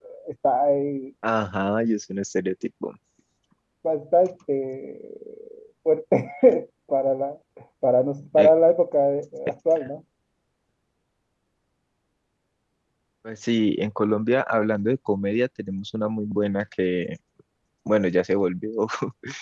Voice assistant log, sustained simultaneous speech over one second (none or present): none